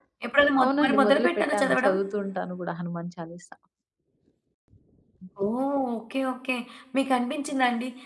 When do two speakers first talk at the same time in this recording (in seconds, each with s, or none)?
0.6 s